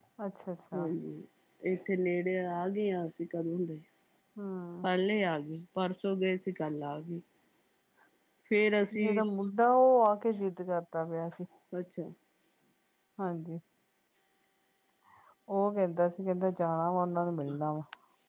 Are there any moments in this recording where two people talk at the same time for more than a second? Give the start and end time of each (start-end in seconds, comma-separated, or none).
none